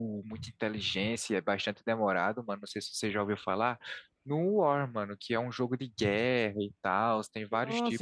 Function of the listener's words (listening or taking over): taking over